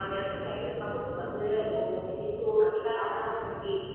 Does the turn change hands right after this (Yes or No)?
No